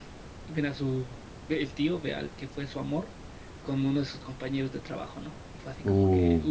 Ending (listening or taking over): taking over